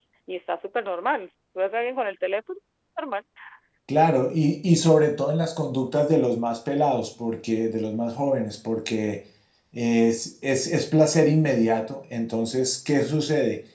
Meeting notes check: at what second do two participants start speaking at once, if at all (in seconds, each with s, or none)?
none